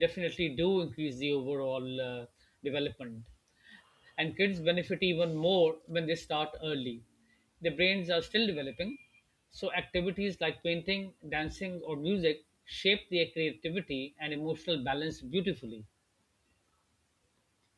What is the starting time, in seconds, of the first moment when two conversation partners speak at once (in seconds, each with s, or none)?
none